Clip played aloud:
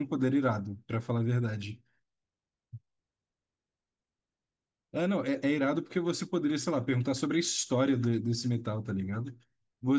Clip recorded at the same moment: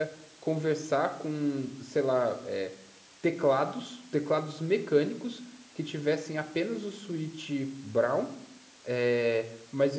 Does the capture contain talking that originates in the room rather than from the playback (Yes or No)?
Yes